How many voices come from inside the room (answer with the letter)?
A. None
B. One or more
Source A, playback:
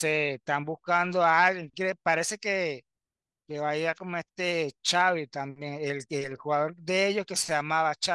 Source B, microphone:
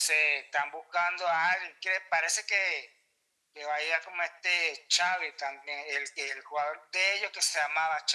A